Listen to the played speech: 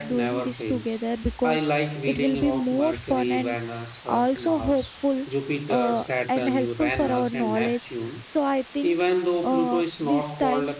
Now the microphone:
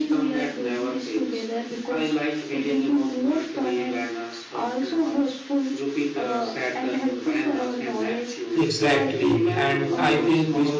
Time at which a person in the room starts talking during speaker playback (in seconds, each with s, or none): 8.5 s